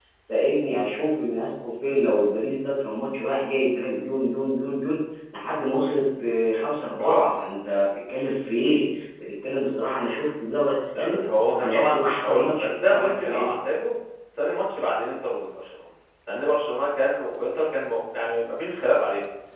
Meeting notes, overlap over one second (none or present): present